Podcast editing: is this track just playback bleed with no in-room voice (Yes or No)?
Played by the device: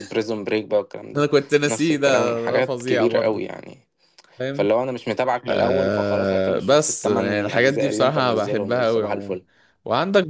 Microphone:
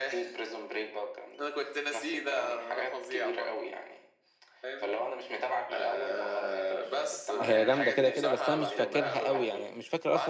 No